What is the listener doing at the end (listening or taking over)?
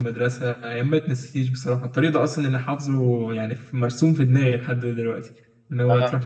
listening